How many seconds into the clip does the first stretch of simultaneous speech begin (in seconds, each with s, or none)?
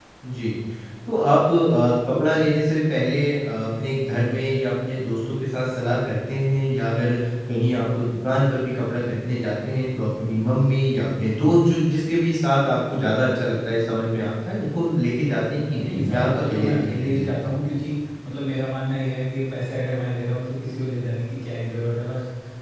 15.8 s